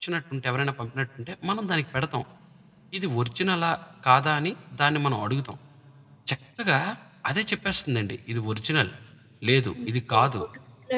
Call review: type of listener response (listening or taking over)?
taking over